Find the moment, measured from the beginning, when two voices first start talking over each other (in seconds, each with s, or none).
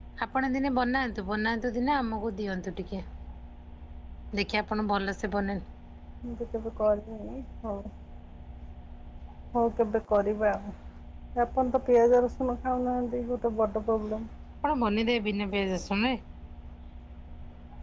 none